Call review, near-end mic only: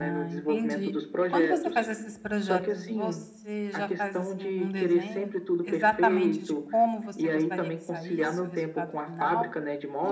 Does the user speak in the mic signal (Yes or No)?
Yes